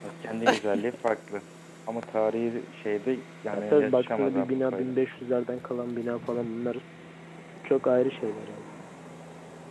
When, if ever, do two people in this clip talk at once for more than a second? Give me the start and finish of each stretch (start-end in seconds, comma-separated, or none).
3.5-4.9